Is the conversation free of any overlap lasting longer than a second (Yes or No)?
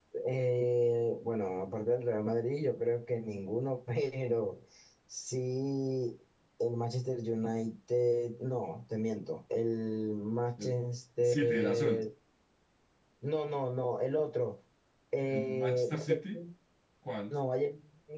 No